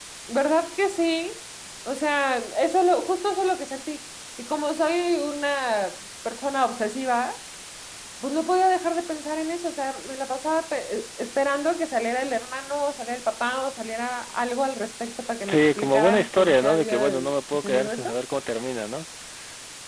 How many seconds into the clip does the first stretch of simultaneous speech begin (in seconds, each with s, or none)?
15.5 s